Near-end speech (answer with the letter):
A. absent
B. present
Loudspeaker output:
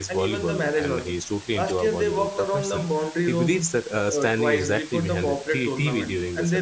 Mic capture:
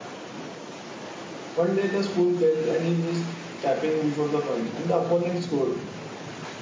B